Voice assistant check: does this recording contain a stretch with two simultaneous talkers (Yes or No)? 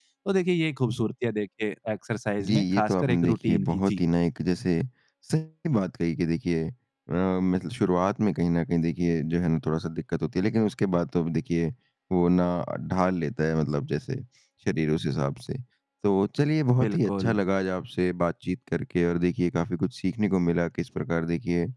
Yes